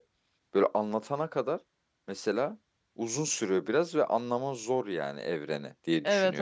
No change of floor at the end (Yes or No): No